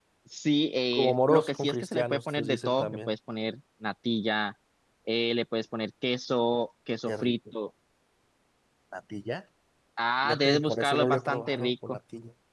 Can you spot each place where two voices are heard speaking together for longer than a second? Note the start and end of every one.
0.9-3.1, 10.2-12.0

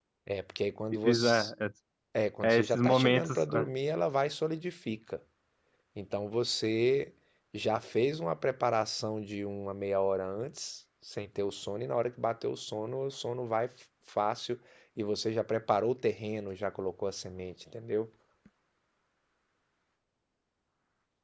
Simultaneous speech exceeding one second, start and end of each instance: 2.4-3.6

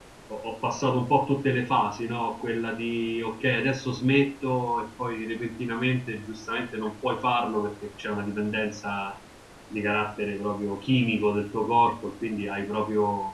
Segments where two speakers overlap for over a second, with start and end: none

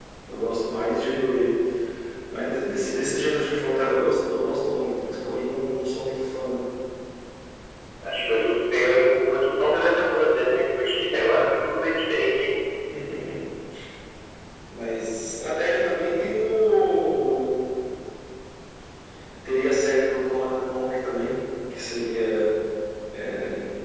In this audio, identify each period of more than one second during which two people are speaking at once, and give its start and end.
none

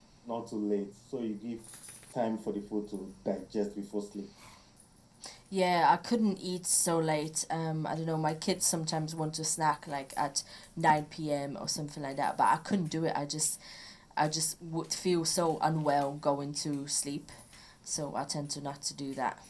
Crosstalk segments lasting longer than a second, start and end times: none

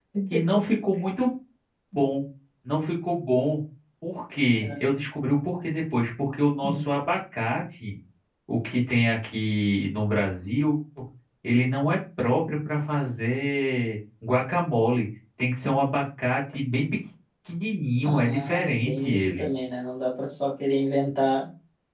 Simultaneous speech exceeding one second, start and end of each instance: 18.1-19.5

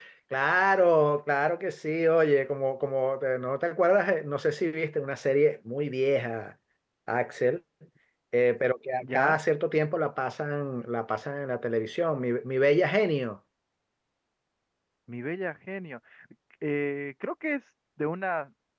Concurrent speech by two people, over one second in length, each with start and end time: none

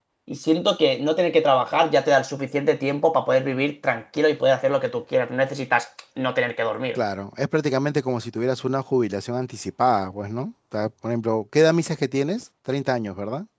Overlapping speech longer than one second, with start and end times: none

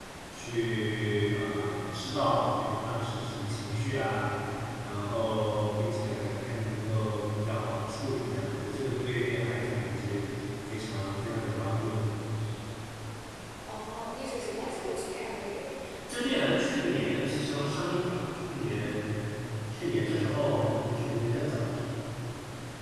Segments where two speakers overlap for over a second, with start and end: none

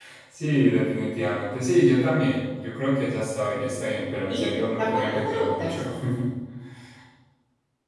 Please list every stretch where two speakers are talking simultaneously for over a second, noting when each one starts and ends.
4.3-5.8

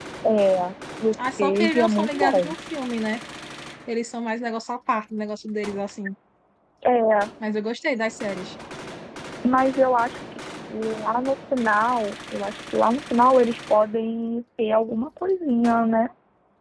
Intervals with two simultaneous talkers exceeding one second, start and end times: 1.2-2.5

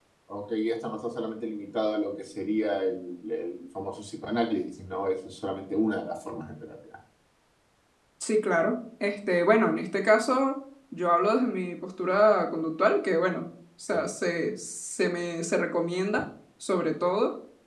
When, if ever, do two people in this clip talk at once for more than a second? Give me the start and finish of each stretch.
none

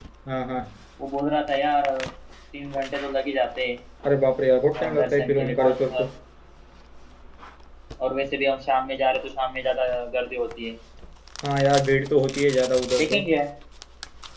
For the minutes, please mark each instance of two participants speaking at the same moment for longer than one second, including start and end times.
4.8-6.0

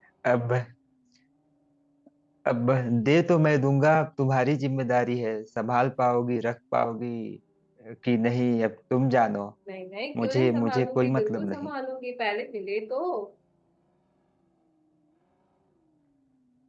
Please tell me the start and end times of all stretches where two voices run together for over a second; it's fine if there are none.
10.2-11.7

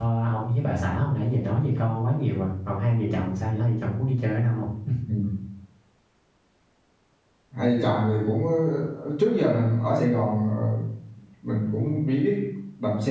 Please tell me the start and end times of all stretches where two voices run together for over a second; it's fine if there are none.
none

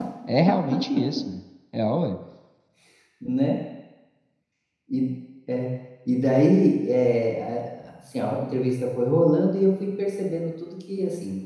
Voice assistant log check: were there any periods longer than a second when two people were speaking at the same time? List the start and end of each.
none

